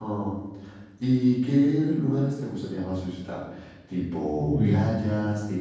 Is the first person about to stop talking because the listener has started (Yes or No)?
No